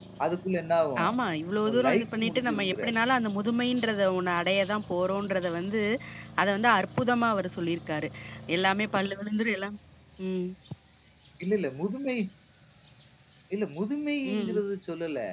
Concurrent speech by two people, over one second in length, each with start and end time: 1.7-3.0

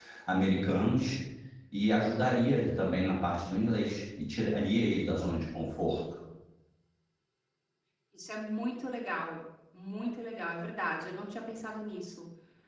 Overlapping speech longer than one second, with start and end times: none

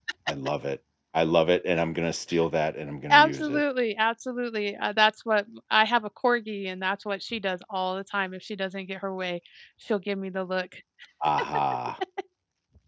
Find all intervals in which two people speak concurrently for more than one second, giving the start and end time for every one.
none

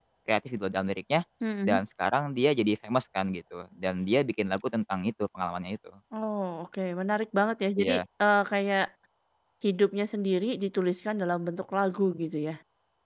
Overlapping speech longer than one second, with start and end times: none

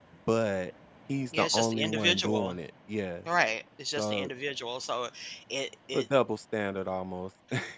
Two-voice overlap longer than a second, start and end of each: 1.4-2.6

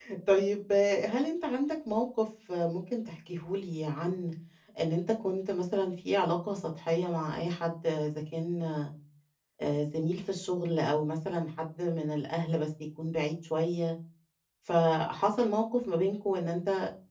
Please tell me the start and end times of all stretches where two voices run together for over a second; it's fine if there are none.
none

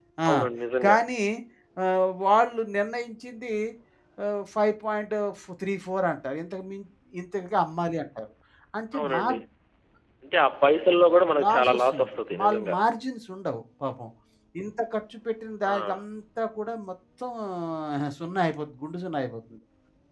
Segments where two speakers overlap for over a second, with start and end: 11.4-12.8

